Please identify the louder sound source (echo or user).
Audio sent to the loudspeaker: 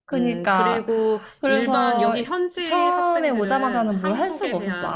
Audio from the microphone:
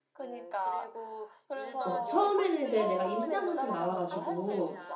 user